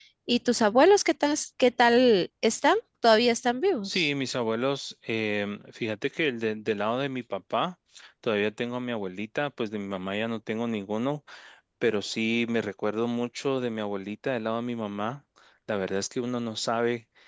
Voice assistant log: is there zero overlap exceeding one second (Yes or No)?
Yes